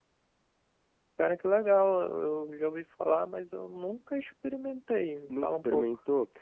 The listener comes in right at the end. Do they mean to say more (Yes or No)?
Yes